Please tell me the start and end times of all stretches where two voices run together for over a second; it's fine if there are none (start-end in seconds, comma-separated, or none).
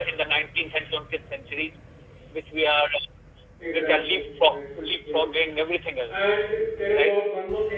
3.6-5.2